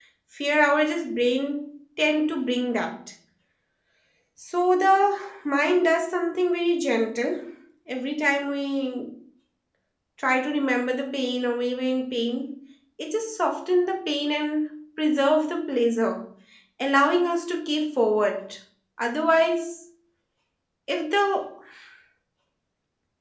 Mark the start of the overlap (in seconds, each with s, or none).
none